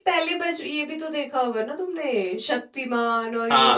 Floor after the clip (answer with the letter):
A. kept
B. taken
B